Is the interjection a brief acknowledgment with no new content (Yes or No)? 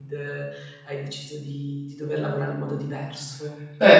No